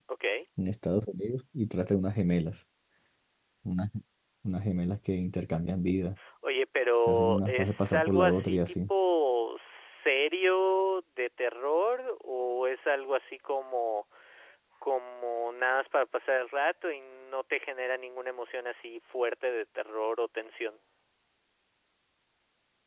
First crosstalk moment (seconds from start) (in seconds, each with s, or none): 7.1 s